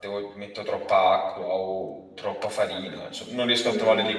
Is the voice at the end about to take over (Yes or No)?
Yes